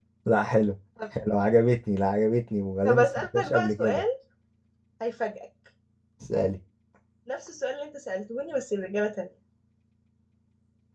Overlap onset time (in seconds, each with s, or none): 2.8 s